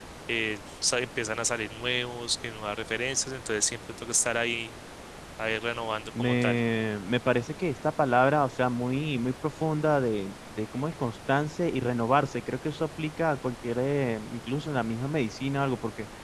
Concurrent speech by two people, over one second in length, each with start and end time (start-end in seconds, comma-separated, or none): none